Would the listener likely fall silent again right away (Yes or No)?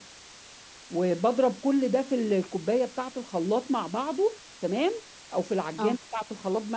Yes